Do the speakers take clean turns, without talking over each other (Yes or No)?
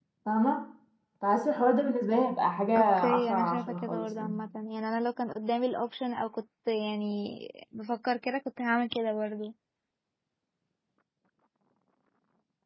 No